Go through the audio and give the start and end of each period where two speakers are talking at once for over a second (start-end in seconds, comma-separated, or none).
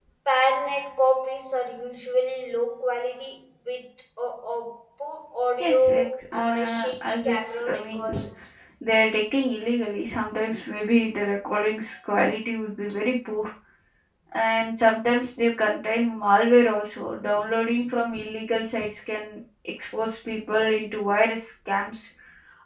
5.6-8.2